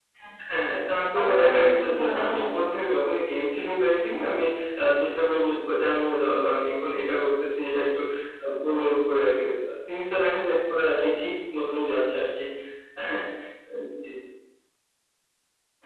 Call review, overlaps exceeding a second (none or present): present